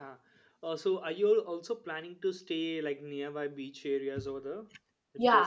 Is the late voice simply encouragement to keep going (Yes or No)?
No